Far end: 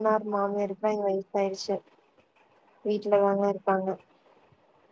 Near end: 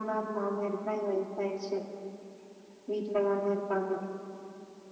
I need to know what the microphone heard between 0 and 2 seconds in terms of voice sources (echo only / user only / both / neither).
echo only